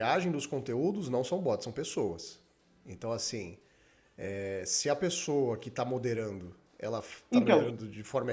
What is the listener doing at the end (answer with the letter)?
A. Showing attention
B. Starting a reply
A